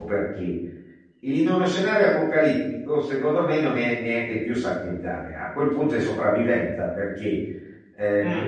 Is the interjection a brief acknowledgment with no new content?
Yes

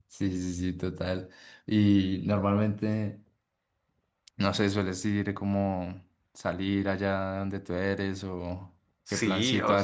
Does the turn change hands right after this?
Yes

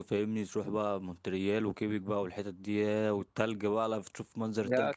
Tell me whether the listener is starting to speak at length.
Yes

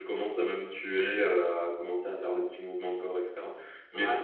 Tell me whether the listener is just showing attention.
Yes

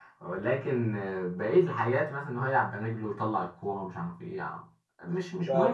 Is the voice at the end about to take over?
Yes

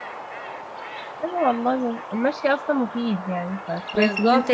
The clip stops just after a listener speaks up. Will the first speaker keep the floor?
No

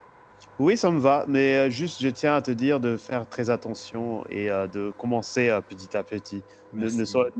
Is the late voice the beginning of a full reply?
No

